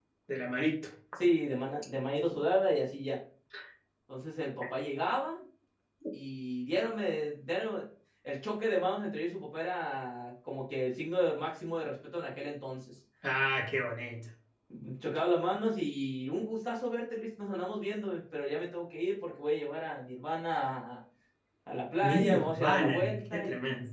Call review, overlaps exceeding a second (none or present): present